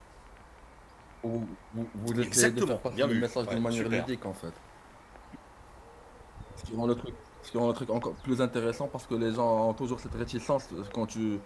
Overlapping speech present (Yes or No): Yes